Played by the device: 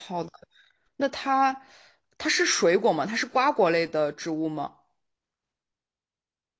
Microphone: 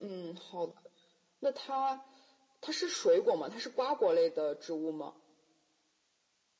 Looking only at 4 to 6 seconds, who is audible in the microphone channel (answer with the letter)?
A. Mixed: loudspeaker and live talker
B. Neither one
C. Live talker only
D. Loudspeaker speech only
D